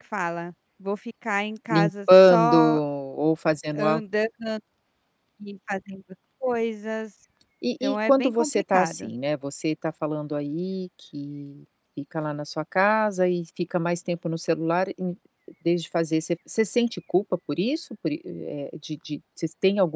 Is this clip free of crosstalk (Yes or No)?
No